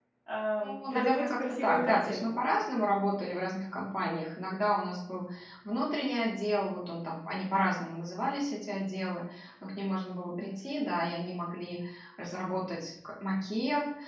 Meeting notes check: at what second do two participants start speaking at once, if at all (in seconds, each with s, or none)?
0.6 s